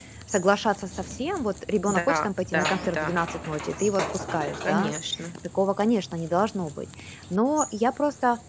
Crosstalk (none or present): present